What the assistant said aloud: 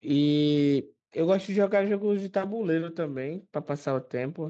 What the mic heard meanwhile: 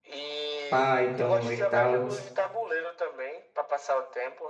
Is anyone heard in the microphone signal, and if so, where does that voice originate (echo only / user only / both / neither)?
both